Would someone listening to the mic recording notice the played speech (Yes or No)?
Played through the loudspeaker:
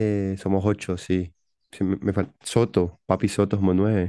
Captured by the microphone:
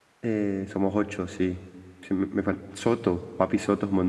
Yes